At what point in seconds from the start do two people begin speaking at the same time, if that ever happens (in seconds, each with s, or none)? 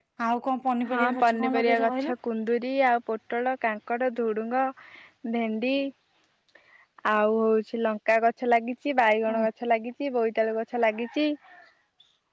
0.9 s